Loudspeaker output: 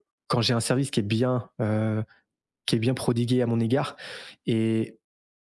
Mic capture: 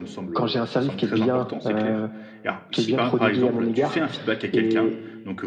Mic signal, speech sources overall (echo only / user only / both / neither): both